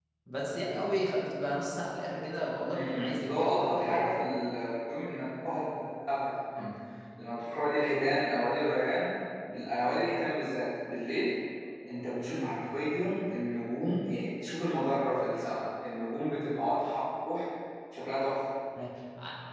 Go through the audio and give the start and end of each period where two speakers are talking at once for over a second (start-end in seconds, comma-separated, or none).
2.7-4.1